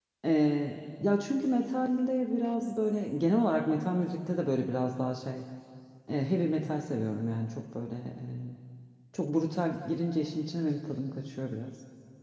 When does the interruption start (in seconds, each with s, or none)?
none